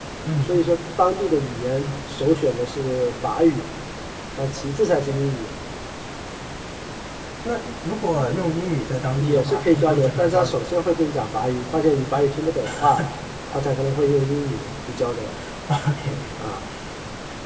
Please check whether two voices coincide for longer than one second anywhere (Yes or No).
Yes